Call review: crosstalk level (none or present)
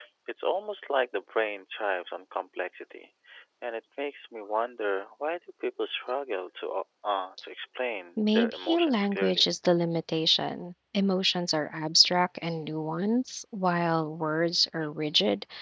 present